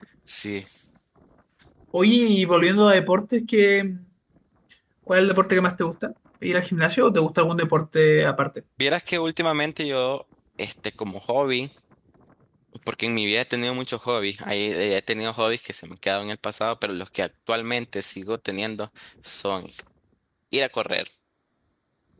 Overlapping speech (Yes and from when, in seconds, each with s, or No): No